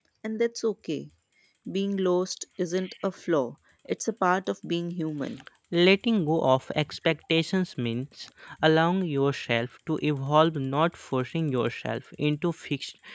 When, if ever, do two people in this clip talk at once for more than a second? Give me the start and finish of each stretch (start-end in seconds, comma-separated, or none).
none